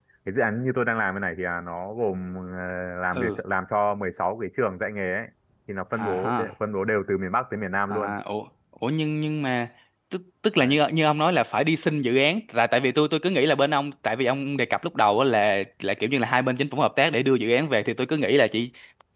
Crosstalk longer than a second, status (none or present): none